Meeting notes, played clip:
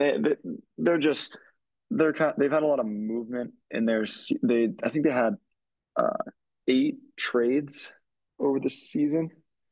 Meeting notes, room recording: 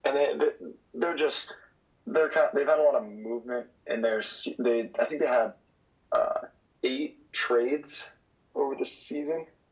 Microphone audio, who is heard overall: echo only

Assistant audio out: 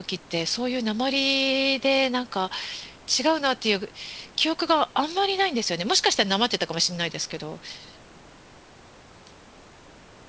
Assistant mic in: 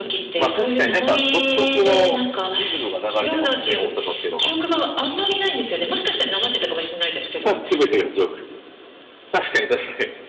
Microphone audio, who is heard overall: both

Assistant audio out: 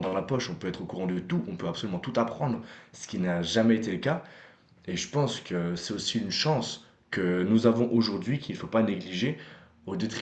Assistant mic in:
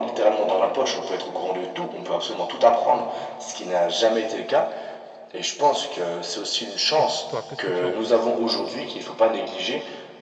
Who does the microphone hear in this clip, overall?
both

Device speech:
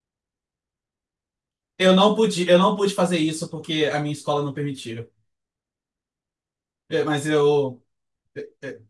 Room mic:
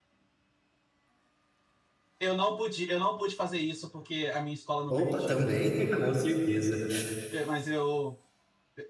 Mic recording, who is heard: both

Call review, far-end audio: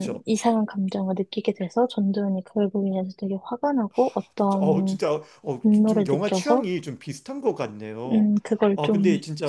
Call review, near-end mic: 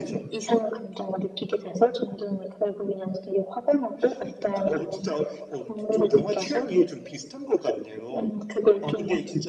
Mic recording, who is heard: echo only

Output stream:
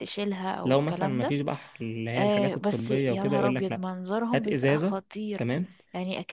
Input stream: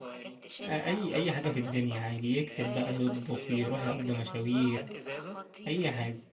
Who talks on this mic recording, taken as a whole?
both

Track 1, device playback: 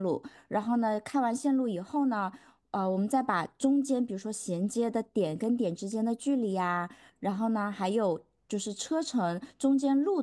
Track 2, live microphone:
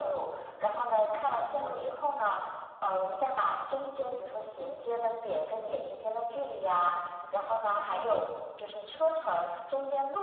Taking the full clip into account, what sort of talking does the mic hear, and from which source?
echo only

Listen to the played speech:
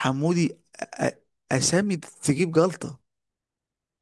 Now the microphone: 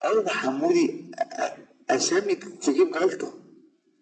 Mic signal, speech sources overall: echo only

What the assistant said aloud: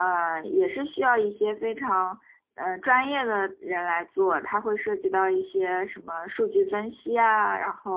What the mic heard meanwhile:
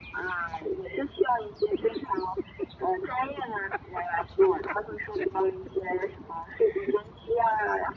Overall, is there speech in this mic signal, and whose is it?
echo only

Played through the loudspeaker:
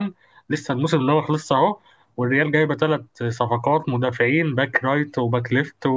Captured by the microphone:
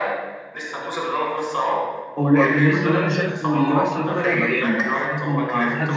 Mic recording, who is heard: both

